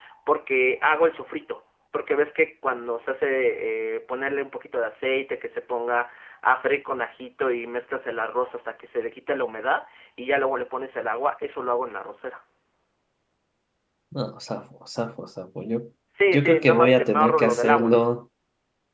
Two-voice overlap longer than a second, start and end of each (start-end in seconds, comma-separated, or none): 16.3-17.9